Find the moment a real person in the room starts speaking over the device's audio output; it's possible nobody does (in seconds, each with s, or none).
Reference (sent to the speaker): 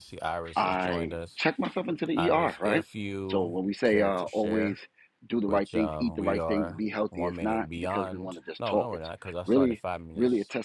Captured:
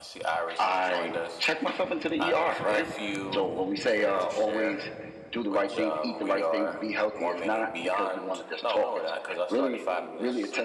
none